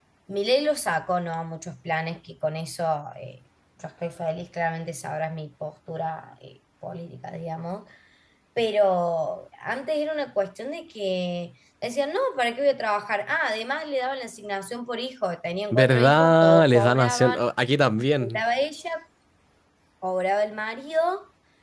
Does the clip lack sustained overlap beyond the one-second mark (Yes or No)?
No